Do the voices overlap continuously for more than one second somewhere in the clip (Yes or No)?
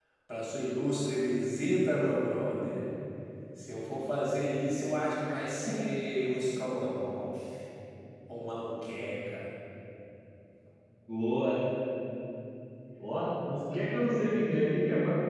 No